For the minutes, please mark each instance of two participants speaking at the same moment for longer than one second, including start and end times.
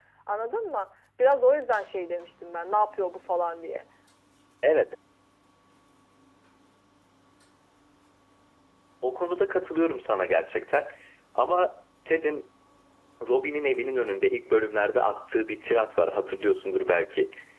none

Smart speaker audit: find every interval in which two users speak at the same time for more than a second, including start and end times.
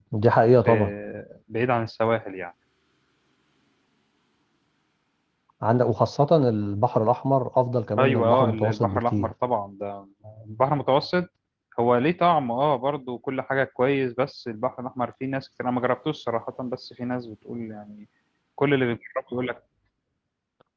8.0-9.3

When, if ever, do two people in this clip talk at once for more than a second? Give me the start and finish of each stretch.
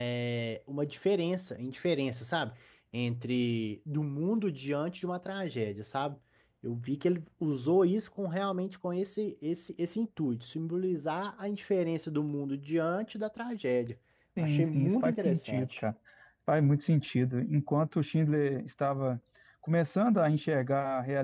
14.4-15.8

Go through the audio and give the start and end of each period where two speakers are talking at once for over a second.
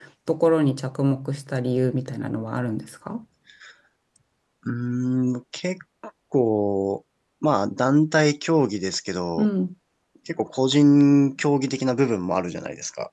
none

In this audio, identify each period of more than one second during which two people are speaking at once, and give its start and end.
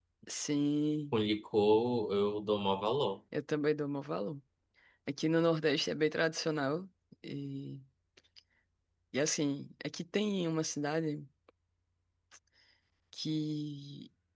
none

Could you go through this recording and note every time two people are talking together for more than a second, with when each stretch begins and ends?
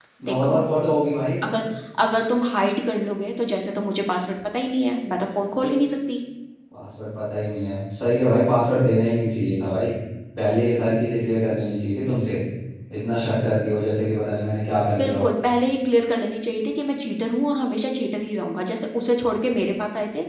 none

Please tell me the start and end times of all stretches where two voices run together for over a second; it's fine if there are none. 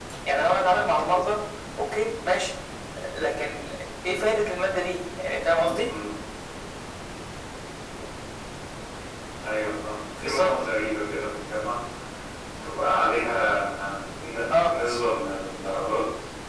none

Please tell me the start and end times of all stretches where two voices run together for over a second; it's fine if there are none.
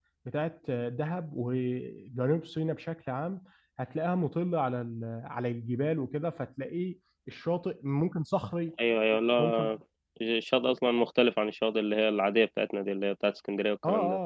none

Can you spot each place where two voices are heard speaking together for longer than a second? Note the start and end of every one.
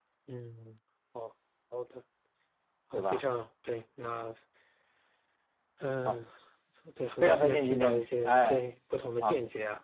7.2-8.6

